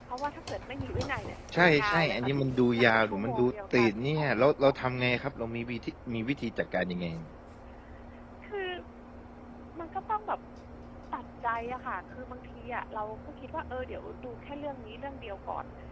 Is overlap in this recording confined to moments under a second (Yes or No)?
No